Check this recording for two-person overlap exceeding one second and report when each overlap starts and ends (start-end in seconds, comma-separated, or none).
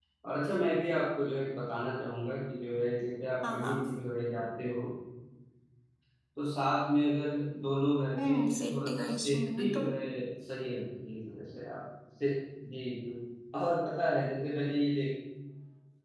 8.3-9.8